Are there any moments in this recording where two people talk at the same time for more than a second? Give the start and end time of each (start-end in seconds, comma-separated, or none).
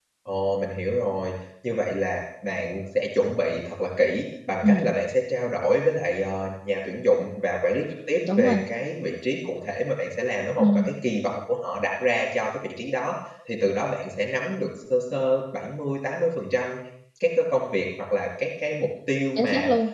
none